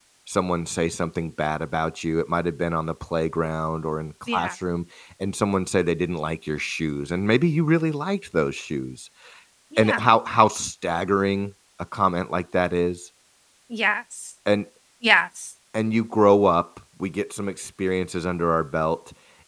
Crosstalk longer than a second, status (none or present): none